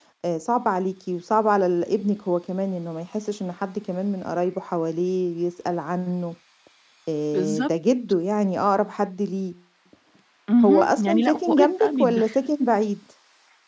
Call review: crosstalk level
present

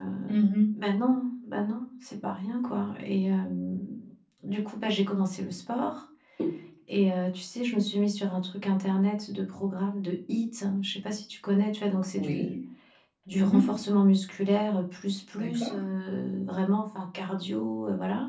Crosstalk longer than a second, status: none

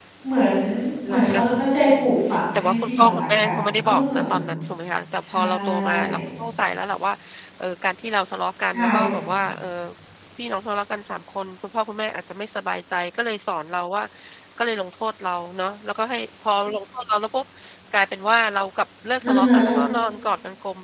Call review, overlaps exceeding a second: present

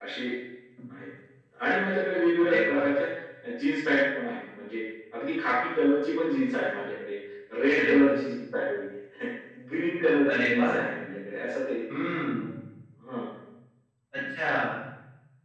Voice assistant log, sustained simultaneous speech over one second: none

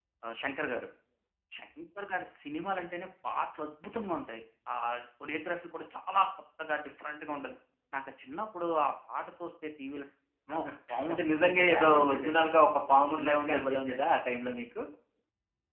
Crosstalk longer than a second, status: present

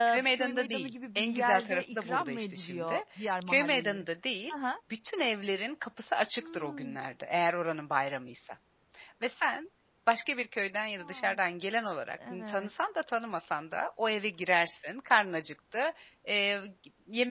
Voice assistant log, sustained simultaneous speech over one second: present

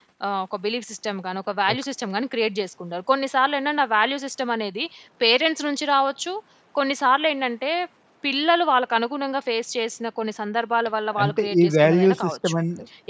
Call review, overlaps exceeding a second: present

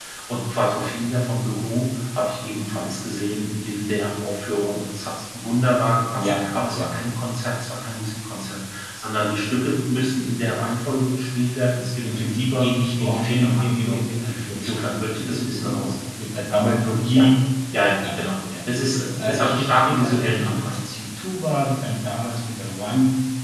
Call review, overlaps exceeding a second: present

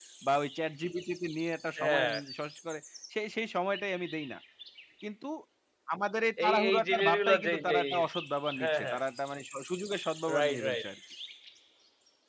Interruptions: present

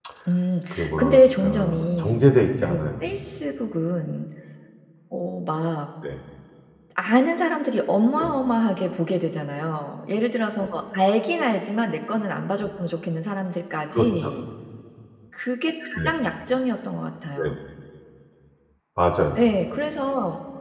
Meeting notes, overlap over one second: present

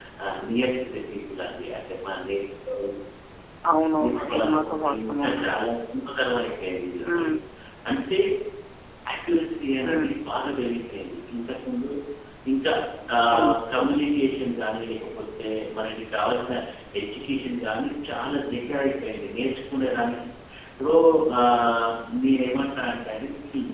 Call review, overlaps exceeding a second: present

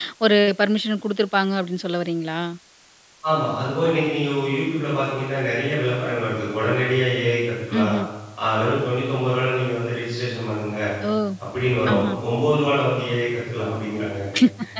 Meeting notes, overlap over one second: none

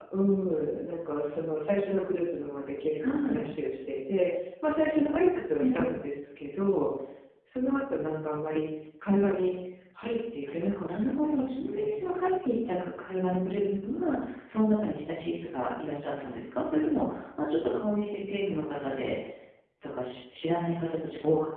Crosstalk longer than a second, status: present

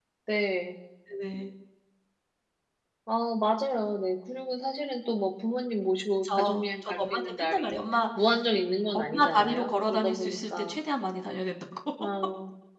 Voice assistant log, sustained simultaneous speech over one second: present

